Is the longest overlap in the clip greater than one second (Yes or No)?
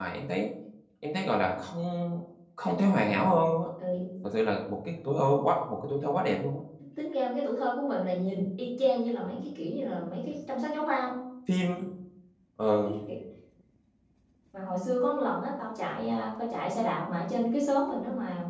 No